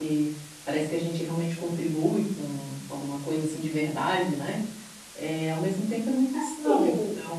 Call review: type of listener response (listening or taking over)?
taking over